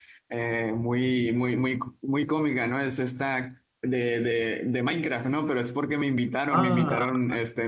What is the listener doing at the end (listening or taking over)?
listening